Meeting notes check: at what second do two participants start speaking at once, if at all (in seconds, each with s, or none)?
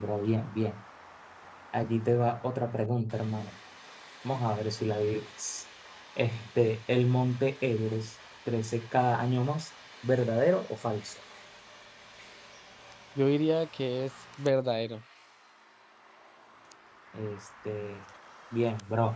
none